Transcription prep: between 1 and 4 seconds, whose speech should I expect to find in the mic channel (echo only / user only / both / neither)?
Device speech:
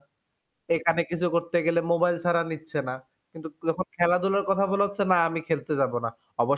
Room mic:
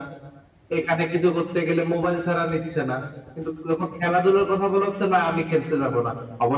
echo only